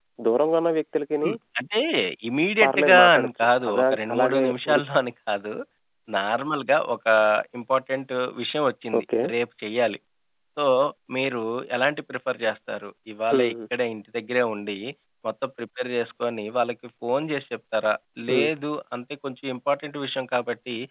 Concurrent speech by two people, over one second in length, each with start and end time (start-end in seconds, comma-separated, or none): 2.6-4.8